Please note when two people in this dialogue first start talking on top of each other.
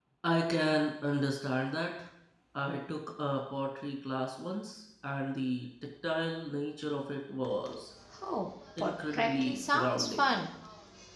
8.8 s

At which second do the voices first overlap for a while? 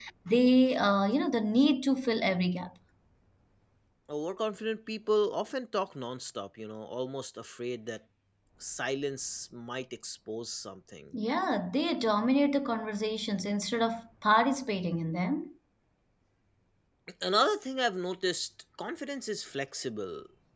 none

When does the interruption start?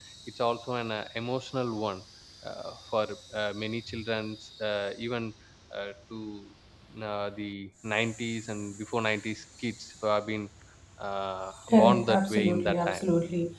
11.7 s

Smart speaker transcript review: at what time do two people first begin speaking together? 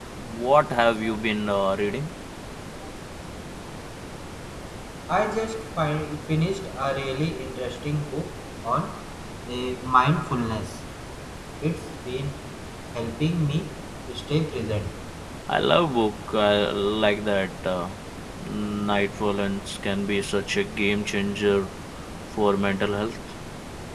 none

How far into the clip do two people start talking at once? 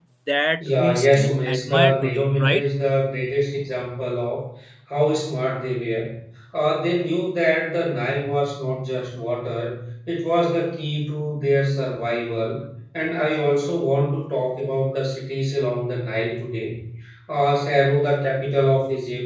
0.6 s

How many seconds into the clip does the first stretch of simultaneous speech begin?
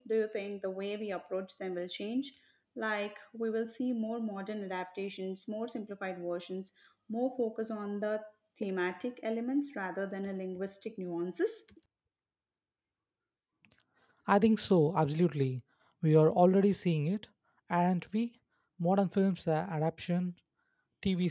none

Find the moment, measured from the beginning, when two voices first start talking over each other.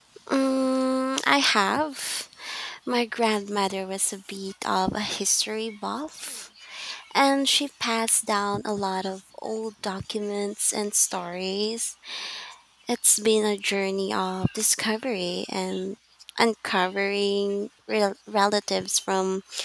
none

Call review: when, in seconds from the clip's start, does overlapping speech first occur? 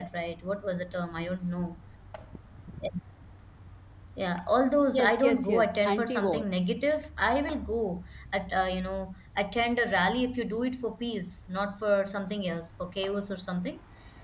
4.9 s

